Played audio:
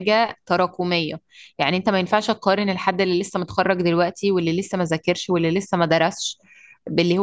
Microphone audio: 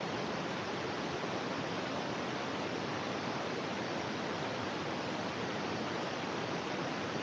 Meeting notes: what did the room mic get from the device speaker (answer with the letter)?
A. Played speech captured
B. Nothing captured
B